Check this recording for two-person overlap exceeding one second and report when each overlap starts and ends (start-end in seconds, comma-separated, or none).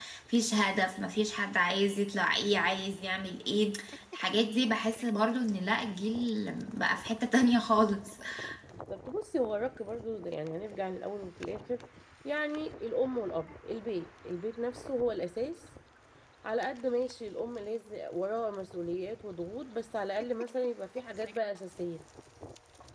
none